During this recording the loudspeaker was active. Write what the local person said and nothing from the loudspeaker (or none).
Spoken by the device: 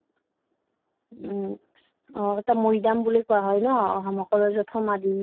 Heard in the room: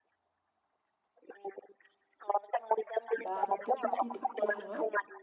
বা তাতে পুতি থৈ দিয়া হয়